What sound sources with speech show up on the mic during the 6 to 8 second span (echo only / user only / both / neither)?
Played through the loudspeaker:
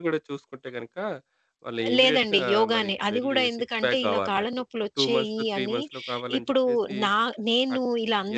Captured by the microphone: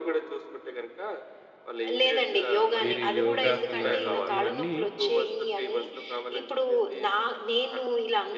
echo only